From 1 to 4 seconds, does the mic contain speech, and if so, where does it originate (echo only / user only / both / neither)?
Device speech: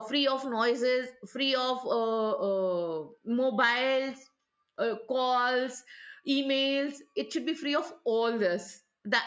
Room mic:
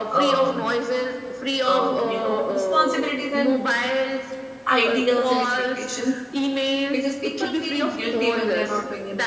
both